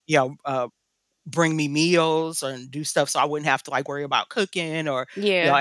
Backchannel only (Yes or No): Yes